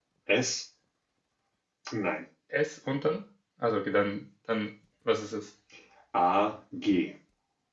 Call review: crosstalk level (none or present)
none